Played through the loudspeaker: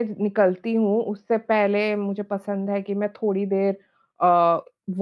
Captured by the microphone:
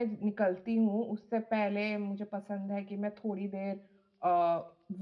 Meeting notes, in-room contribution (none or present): none